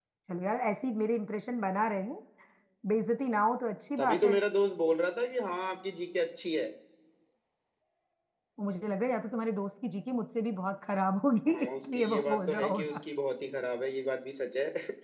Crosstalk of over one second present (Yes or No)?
Yes